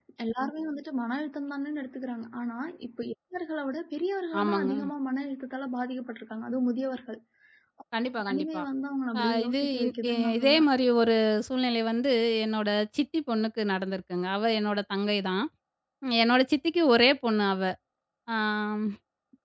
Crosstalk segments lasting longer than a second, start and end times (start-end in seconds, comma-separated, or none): 9.2-10.6